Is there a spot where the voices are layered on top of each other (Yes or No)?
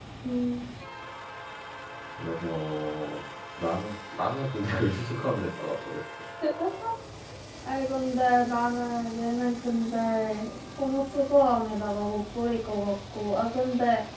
No